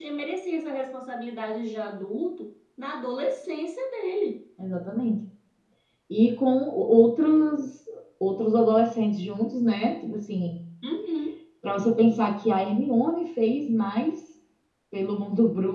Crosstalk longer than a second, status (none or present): none